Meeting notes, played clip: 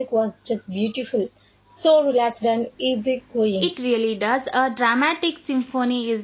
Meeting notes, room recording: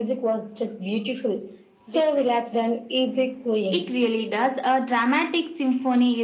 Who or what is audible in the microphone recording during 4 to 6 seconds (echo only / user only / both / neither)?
echo only